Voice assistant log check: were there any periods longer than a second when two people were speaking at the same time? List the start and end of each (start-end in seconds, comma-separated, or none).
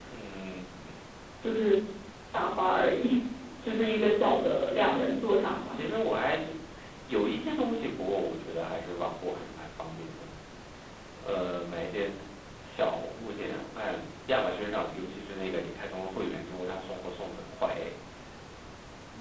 none